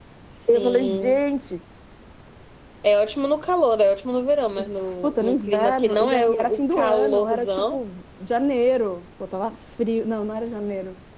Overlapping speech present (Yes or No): Yes